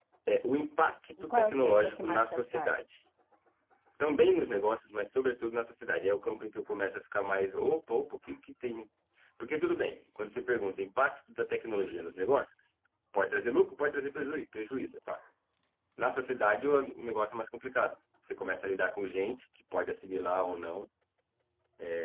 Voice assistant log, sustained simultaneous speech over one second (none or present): present